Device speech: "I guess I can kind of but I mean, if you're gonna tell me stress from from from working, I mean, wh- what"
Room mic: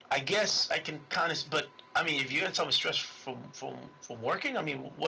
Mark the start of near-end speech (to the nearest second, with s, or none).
none